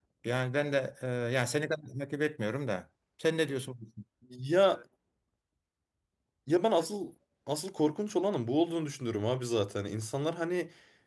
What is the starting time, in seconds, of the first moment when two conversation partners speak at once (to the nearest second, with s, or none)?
none